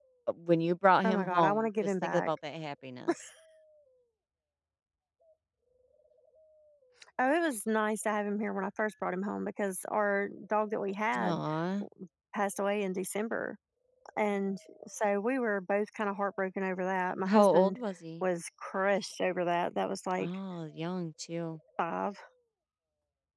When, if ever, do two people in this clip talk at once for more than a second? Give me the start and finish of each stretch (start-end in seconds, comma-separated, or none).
1.1-2.3